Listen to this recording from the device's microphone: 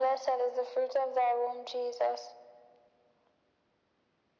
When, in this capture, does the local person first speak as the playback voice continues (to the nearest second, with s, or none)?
none